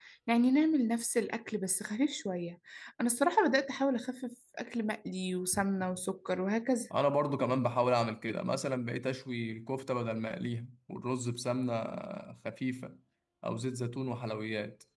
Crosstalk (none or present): none